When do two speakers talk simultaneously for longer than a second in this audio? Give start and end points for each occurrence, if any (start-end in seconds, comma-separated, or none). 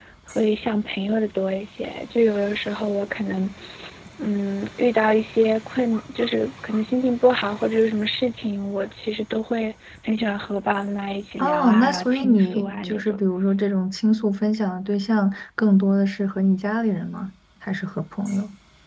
11.4-13.2